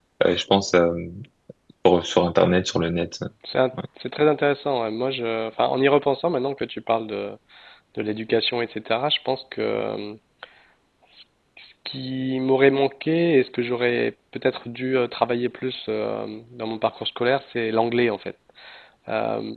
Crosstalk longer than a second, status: none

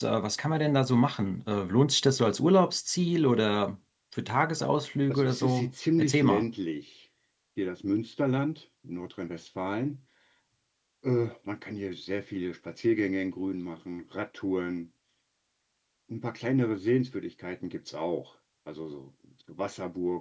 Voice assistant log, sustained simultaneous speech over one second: present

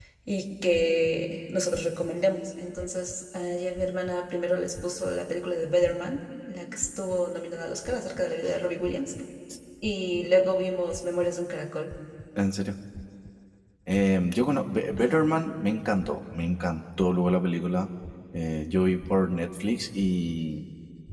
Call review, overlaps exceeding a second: none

